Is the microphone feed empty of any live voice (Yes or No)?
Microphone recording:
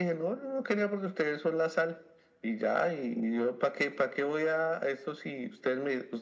Yes